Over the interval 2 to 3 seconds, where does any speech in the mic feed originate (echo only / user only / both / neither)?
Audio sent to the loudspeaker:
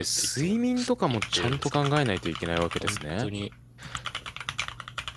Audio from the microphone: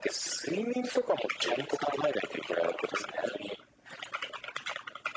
echo only